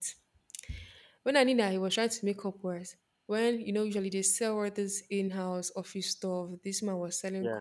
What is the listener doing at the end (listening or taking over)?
listening